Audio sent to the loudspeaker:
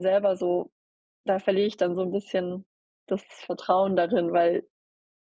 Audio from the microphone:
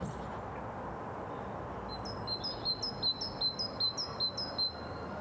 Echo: none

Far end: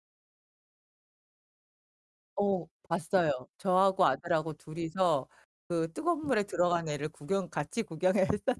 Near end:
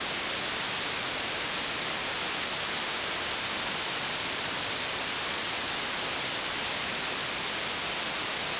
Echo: none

